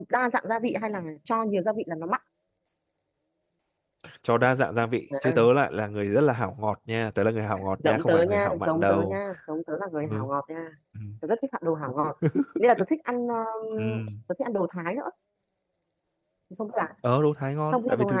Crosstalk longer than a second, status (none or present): present